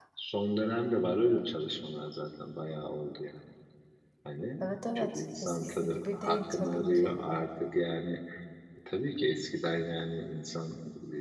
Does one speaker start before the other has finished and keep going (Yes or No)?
Yes